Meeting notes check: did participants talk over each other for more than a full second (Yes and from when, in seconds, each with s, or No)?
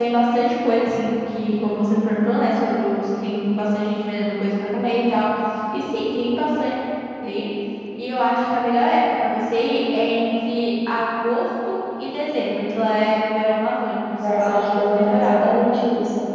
Yes, from 14.2 s